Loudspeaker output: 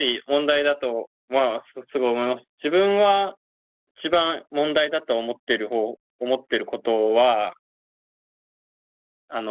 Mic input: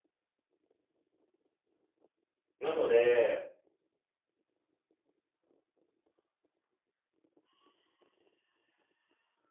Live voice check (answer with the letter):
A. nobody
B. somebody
B